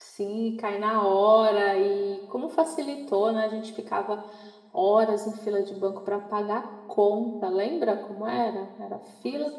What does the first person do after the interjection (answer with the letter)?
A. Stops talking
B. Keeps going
B